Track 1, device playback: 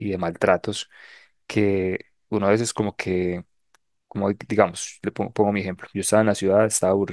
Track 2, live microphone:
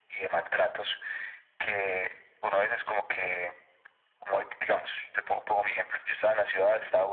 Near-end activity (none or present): none